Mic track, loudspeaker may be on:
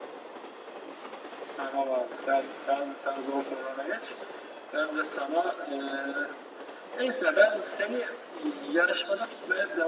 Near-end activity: none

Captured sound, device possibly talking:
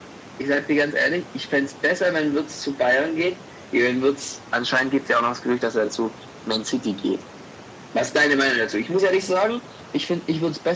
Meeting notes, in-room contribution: none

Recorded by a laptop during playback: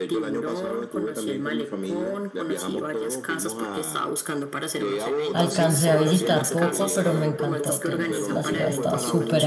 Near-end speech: present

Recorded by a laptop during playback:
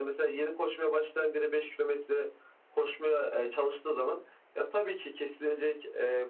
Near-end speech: none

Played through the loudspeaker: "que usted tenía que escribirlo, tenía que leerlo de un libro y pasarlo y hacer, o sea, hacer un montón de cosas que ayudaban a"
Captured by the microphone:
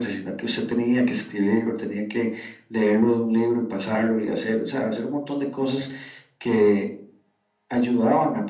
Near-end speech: none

